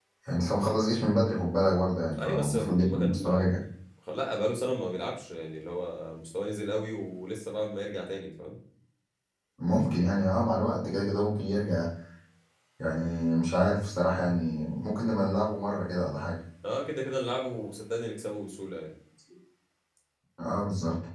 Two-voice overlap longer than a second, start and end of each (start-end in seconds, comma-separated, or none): 2.2-3.5